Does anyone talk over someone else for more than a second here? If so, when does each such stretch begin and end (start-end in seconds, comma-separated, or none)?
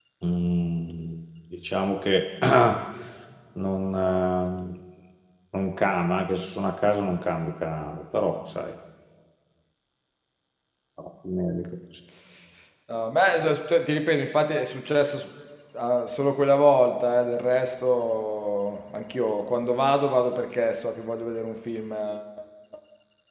none